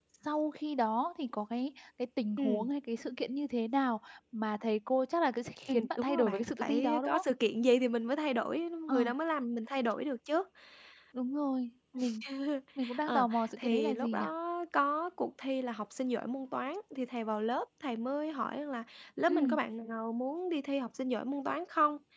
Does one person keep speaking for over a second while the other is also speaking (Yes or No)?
Yes